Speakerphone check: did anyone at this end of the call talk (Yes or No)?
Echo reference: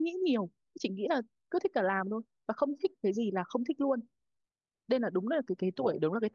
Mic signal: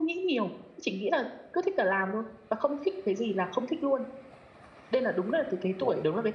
No